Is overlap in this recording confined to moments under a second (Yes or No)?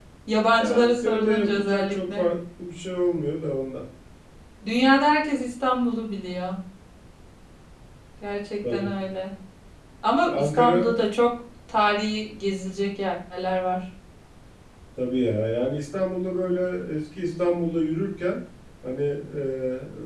No